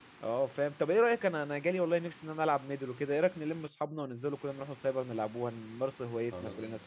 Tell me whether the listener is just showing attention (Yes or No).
No